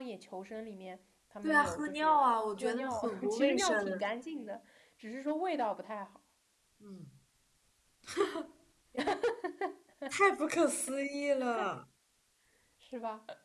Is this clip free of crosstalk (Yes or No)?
No